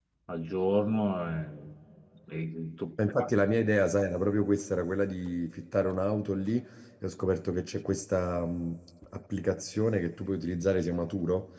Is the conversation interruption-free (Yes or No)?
Yes